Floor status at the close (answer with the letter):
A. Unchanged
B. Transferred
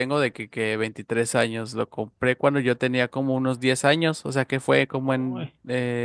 A